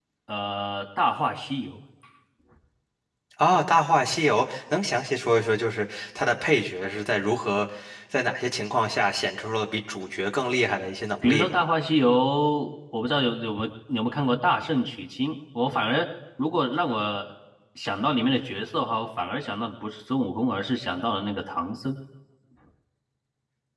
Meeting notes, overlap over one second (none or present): none